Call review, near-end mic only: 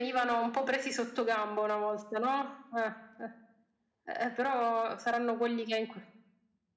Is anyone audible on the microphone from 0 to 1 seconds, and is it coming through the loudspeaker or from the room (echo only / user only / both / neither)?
echo only